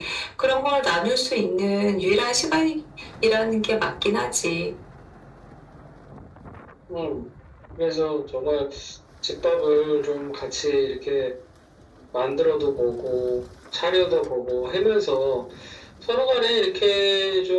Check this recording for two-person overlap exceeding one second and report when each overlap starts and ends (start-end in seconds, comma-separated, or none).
none